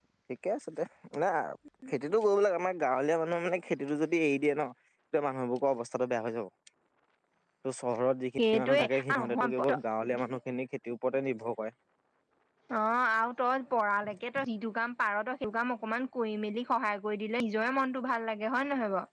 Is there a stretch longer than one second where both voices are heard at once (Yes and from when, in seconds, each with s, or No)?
Yes, from 8.5 s